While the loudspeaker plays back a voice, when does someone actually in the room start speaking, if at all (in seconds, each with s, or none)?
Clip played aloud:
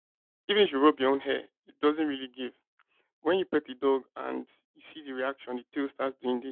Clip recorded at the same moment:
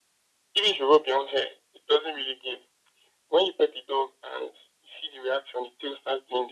none